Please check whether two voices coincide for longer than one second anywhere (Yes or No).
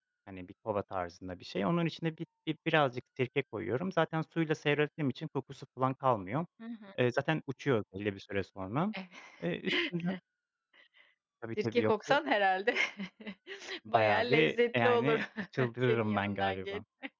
Yes